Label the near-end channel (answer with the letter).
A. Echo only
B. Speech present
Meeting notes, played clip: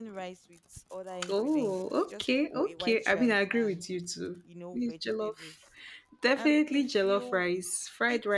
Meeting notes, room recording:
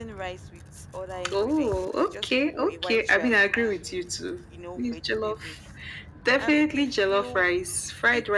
A